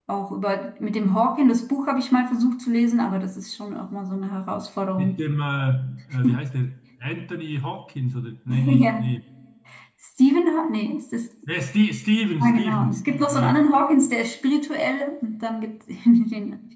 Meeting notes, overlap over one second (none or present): present